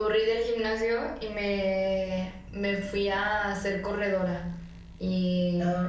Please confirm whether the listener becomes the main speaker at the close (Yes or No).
No